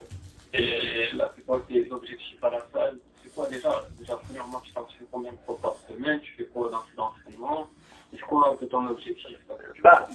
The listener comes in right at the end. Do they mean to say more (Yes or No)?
Yes